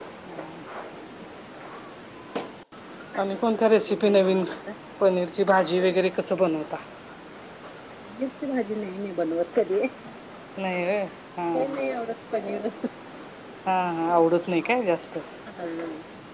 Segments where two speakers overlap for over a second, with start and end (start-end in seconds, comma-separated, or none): 3.2-4.4